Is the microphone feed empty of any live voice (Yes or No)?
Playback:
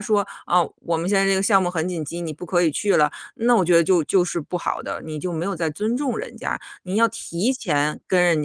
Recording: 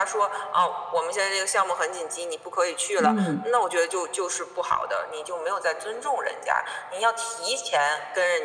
No